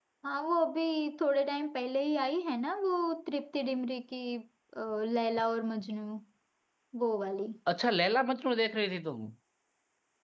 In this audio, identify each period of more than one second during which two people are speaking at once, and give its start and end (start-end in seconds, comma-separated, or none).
none